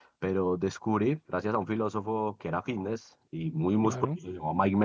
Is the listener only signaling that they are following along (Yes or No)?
Yes